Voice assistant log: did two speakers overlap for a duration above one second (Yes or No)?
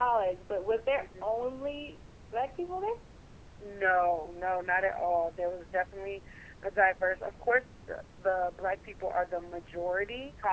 No